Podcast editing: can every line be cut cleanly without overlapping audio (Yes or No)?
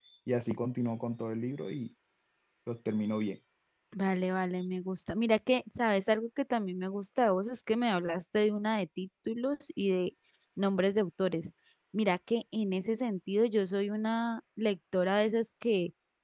Yes